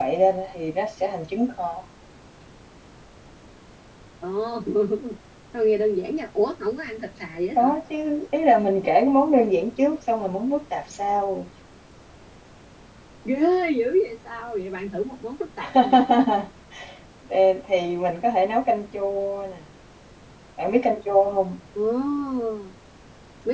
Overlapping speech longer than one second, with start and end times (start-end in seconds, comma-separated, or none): none